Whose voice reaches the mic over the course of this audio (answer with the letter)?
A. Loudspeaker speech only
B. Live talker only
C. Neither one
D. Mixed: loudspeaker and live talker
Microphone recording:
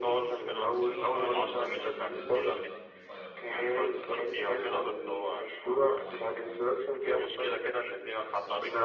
D